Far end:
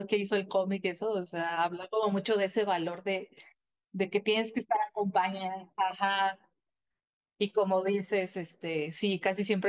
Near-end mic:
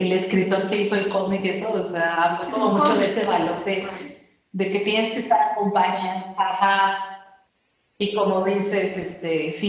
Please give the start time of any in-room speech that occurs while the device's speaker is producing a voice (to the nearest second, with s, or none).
2 s